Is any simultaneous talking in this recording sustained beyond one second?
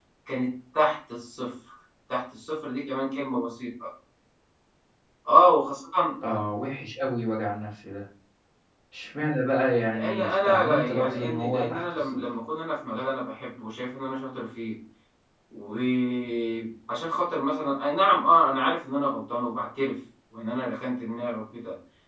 Yes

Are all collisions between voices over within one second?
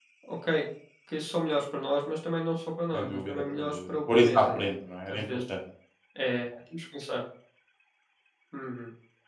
No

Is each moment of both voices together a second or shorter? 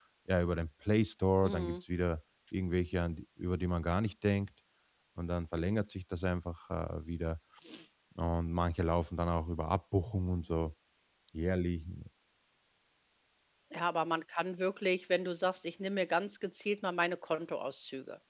Yes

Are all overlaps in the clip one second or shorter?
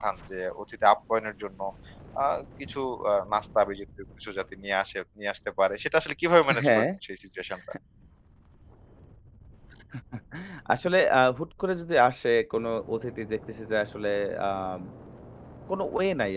Yes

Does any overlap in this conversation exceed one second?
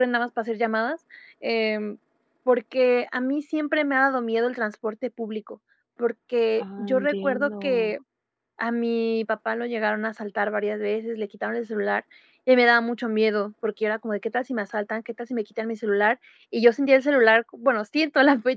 Yes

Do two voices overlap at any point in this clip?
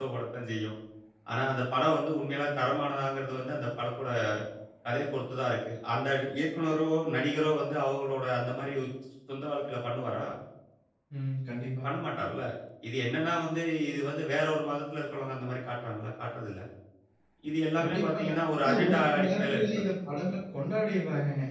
Yes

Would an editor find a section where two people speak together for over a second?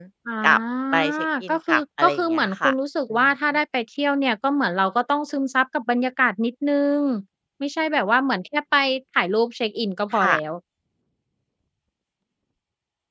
Yes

